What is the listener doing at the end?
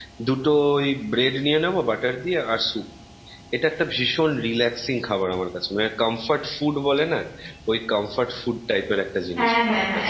taking over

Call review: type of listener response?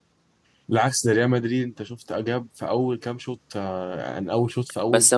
taking over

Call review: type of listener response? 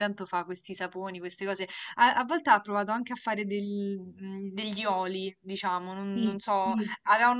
listening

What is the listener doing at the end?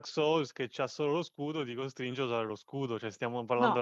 taking over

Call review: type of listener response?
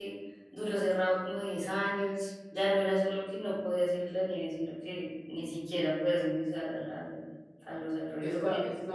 taking over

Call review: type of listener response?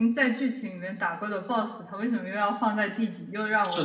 taking over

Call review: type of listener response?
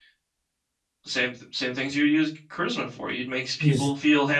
listening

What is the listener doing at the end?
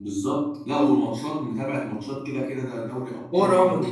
taking over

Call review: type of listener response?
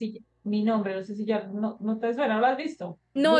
taking over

